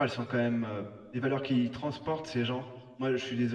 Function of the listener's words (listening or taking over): listening